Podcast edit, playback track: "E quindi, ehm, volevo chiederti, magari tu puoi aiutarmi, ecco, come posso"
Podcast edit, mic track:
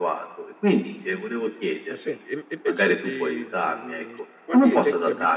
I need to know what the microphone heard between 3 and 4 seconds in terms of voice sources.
both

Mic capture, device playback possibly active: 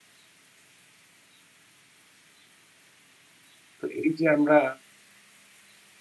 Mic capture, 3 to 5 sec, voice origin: user only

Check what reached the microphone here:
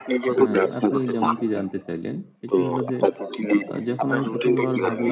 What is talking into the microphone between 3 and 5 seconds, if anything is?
both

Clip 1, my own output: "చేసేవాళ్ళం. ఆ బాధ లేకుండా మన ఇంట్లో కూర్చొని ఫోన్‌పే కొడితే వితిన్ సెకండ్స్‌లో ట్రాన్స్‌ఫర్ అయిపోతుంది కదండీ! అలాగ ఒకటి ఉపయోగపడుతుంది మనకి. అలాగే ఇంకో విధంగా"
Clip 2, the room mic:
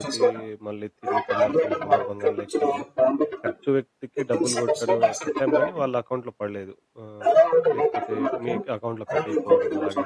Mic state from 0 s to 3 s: both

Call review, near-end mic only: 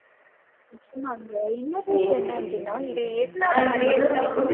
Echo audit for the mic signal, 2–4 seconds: both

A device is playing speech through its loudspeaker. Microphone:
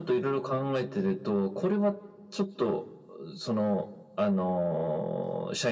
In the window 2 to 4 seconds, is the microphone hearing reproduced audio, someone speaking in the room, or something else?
echo only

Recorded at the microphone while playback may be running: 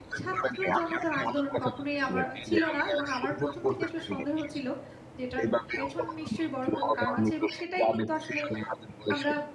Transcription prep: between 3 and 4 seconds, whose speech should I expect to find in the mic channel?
both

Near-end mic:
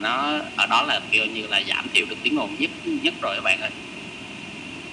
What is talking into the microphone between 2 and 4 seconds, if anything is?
echo only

